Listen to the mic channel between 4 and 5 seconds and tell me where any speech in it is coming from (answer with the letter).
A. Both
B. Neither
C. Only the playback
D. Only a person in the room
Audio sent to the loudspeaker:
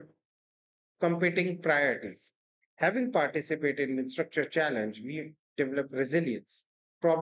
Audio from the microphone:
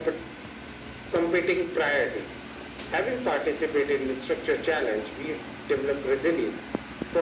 C